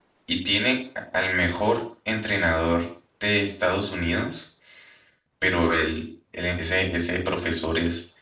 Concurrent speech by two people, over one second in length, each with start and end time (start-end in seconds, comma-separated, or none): none